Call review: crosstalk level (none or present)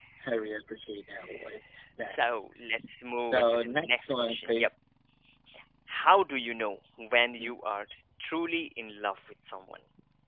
present